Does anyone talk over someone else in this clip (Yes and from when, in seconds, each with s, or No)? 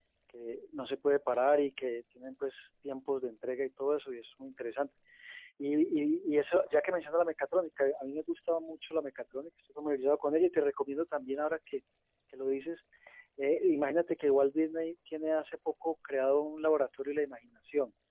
No